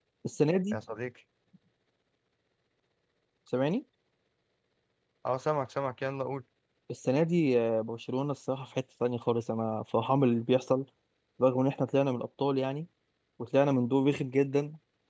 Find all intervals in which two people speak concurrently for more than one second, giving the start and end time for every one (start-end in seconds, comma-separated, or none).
none